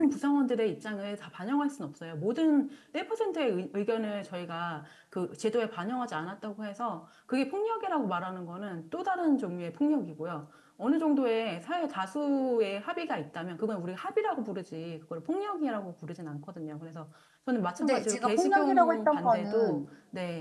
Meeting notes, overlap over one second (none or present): present